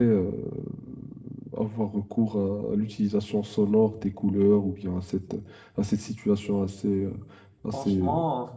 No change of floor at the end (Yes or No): No